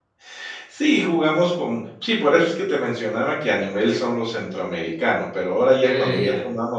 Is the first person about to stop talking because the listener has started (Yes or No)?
No